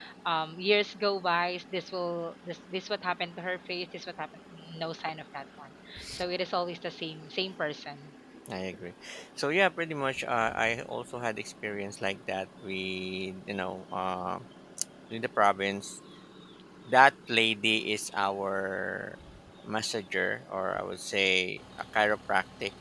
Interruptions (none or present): none